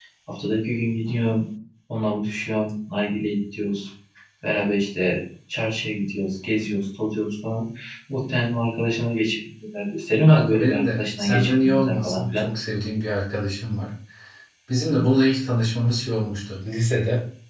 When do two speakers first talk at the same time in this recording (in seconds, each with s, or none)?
10.3 s